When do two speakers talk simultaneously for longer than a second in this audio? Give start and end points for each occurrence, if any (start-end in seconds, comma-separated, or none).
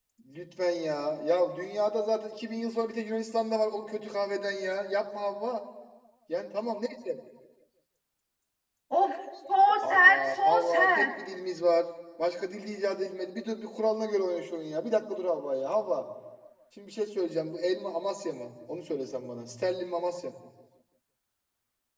9.8-11.1